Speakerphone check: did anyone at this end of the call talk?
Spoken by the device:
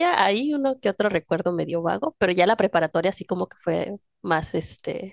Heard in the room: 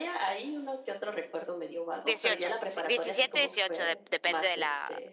Yes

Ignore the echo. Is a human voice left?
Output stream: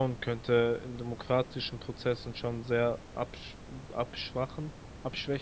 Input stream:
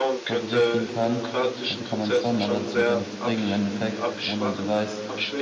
Yes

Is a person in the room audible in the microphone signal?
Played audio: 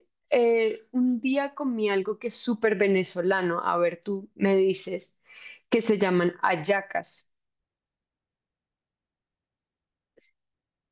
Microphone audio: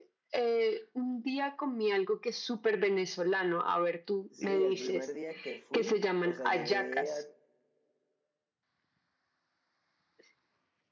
Yes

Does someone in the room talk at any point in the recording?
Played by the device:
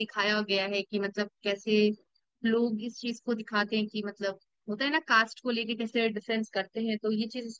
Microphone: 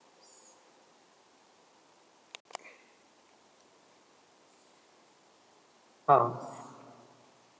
Yes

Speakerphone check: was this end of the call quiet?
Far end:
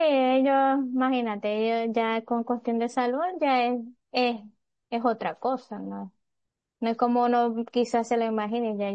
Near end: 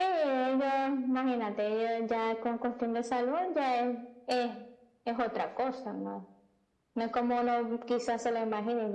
Yes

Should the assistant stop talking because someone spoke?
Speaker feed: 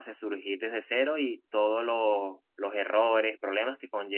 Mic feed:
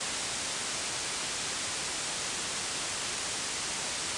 No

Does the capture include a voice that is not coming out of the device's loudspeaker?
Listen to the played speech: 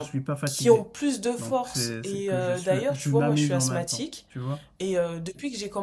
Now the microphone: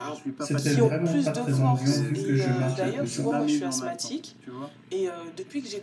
Yes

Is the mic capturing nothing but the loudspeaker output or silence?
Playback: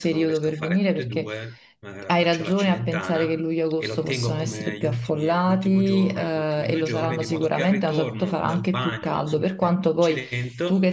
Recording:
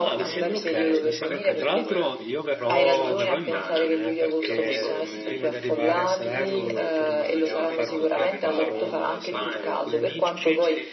No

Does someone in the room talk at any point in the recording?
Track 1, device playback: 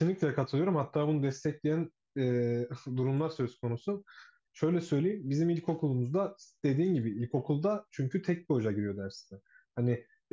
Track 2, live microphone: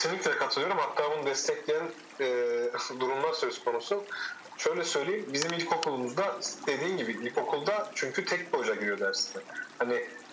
No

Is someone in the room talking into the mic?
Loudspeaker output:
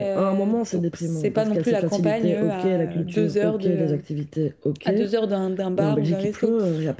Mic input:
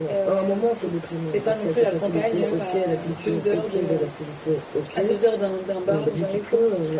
No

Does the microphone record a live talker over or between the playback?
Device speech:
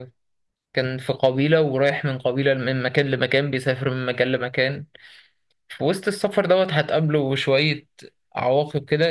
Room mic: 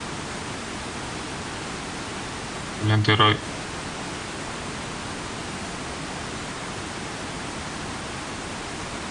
Yes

